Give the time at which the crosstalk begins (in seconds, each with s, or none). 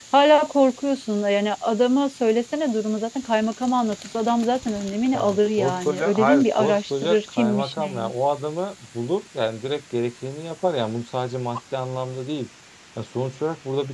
5.1 s